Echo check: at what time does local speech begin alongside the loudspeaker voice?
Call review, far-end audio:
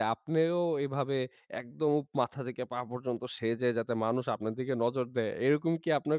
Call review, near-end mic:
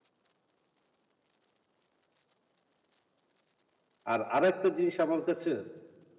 4 s

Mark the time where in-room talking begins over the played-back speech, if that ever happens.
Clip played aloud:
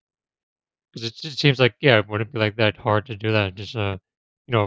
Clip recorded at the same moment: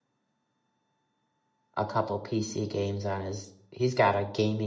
2 s

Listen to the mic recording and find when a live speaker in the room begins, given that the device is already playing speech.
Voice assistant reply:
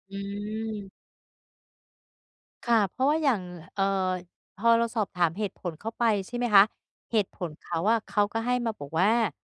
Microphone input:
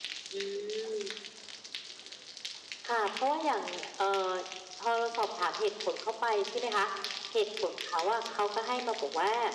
none

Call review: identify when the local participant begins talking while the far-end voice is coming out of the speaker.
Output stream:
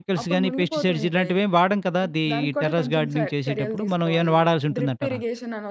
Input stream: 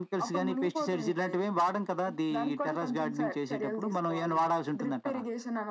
none

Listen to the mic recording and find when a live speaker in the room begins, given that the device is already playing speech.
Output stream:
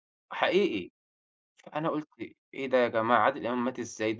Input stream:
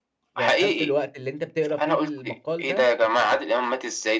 0 s

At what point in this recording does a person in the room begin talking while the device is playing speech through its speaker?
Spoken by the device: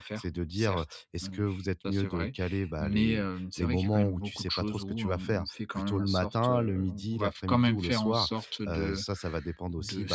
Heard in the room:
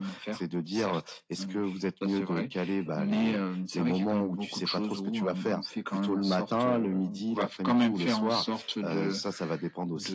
none

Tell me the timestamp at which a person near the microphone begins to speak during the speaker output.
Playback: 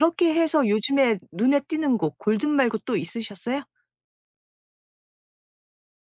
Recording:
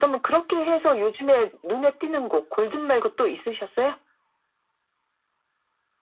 none

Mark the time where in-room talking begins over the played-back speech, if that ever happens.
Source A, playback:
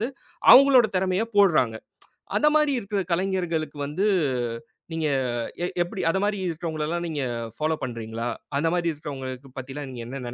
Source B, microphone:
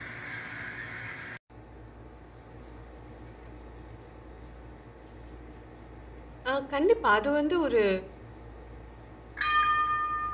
6 s

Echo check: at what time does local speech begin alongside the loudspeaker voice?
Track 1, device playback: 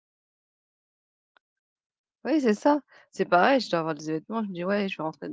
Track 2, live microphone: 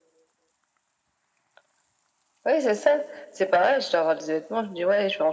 none

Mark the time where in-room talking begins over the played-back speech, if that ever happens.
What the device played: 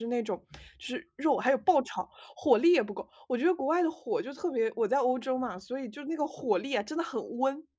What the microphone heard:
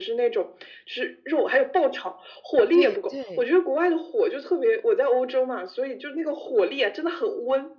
3 s

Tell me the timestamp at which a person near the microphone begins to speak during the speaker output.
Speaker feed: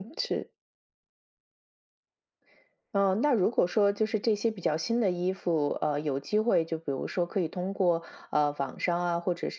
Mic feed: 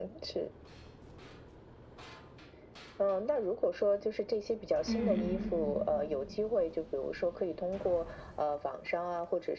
5 s

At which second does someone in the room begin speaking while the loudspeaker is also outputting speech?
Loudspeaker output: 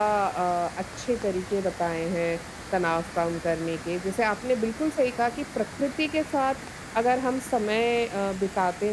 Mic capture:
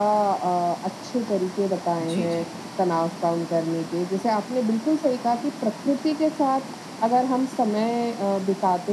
2 s

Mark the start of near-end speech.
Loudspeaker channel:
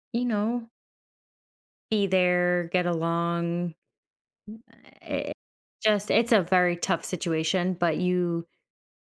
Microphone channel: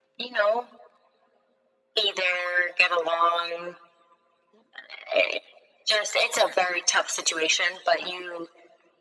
none

